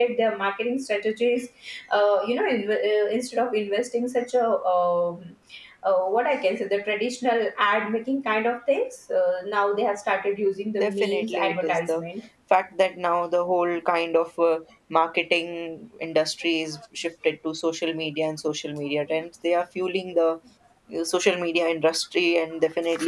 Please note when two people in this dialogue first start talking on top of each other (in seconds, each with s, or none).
10.8 s